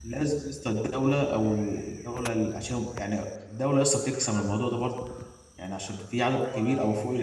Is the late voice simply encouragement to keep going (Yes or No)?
Yes